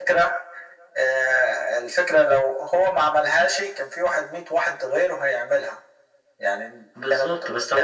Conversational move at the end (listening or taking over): taking over